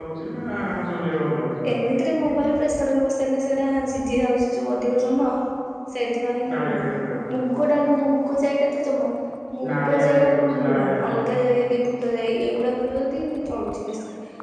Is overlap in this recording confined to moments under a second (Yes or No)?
No